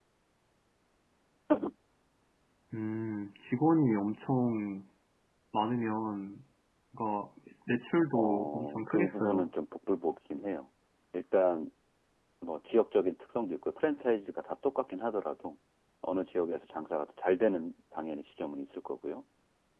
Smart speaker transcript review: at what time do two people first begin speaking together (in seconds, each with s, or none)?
8.1 s